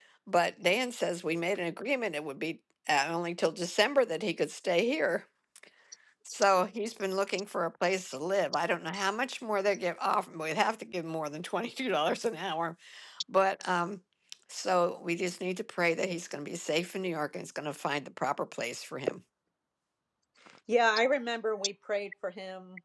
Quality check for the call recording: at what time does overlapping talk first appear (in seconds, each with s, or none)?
none